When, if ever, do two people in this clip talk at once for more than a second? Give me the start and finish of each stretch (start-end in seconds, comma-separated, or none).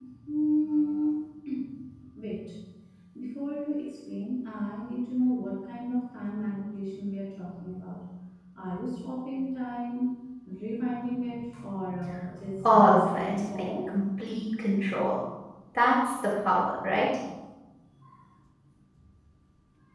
12.6-13.9